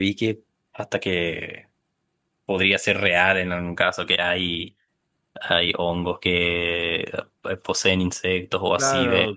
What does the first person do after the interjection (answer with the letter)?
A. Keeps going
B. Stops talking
B